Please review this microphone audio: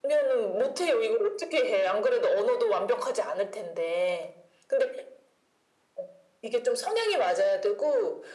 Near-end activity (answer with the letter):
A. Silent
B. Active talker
A